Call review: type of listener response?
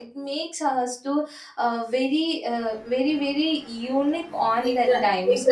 taking over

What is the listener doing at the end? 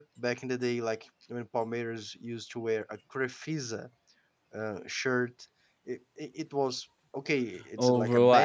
taking over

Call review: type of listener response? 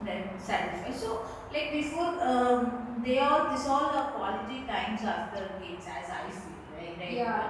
taking over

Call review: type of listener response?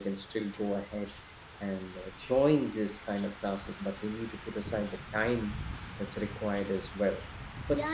taking over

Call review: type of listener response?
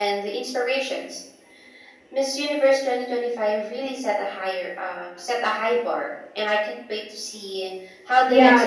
taking over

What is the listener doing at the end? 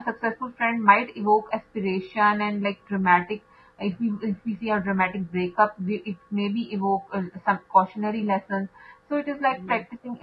listening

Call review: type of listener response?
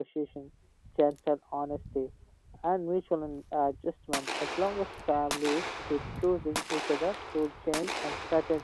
listening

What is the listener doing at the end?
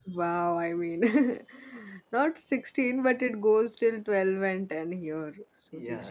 taking over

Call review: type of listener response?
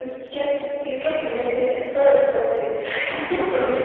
listening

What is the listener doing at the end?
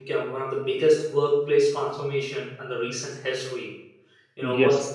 listening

